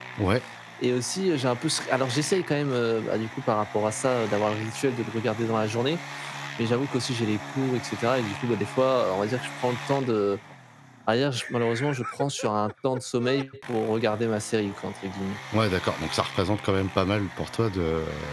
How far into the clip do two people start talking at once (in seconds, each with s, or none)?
none